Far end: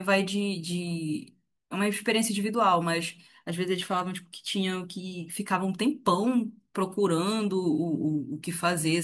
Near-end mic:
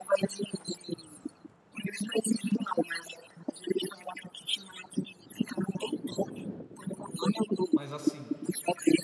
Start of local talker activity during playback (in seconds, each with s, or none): 7.7 s